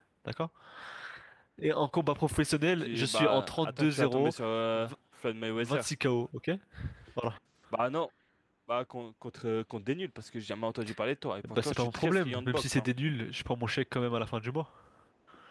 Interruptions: present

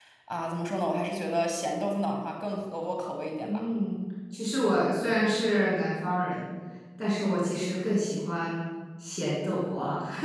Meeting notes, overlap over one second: none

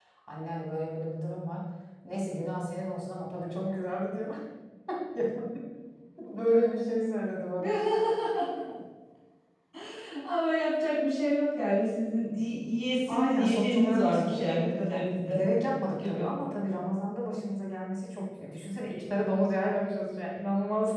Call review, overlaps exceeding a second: present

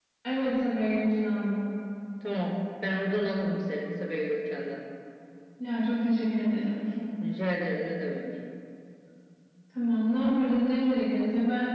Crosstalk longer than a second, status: none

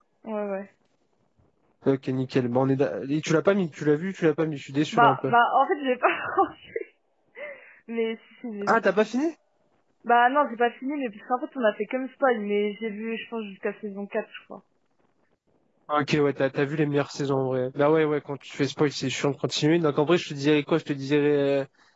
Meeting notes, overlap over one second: none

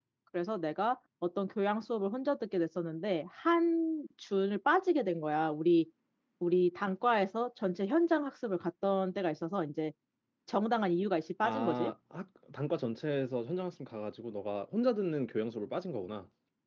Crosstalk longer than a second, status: none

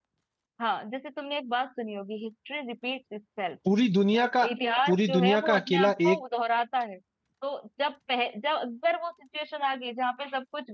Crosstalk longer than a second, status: present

